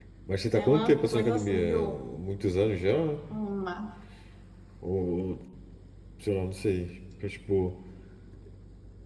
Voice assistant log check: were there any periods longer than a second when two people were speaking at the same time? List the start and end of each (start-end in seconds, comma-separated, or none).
0.5-1.9